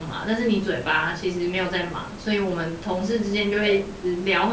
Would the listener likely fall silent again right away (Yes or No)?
Yes